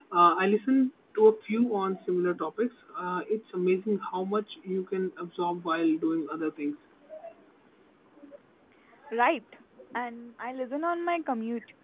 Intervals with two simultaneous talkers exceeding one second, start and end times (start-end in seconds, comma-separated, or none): none